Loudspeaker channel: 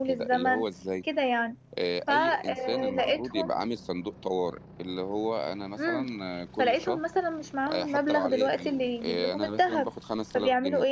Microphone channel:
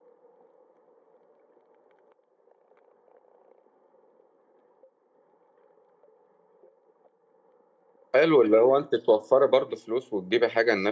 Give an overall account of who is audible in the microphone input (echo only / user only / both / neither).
user only